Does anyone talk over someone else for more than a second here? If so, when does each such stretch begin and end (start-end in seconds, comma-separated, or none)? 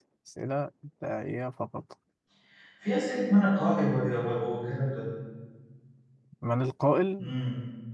none